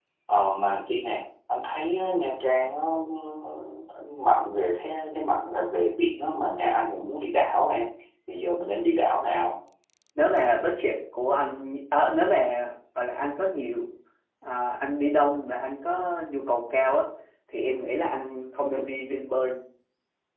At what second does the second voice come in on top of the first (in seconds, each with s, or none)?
none